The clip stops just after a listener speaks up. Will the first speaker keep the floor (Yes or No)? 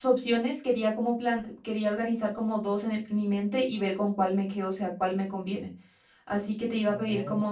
Yes